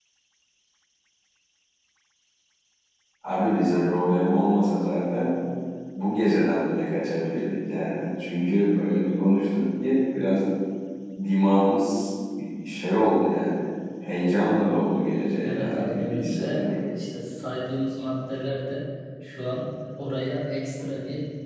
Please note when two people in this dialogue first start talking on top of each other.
15 s

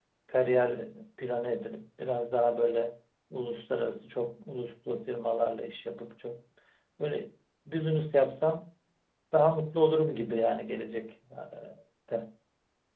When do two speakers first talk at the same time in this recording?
none

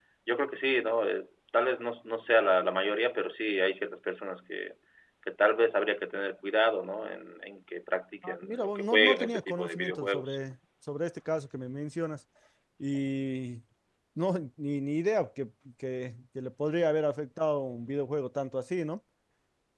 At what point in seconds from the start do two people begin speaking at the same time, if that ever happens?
8 s

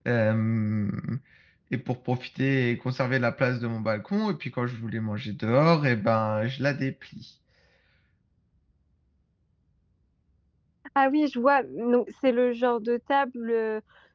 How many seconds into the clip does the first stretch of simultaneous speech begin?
none

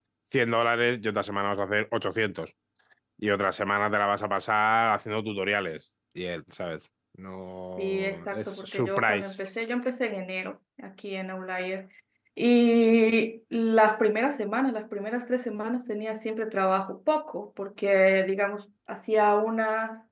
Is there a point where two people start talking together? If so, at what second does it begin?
8 s

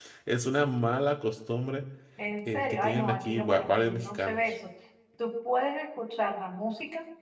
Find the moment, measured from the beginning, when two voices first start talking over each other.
2 s

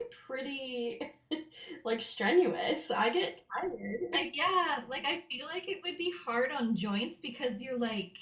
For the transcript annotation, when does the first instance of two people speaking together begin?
none

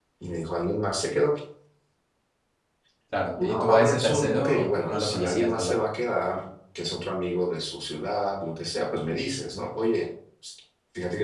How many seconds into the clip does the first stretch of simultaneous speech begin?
3 s

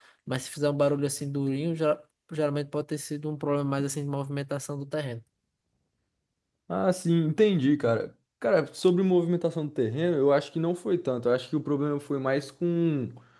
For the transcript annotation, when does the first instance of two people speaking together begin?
none

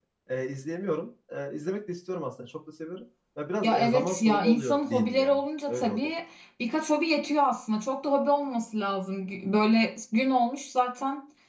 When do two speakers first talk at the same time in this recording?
4 s

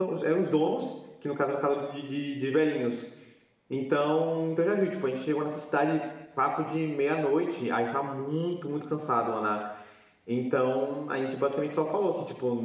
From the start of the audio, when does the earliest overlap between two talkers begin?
none

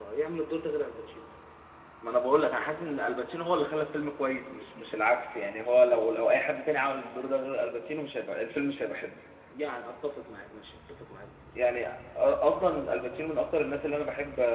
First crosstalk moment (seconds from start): none

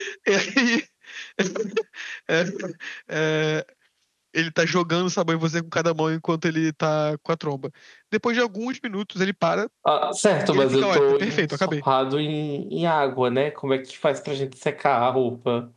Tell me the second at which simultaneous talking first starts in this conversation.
11 s

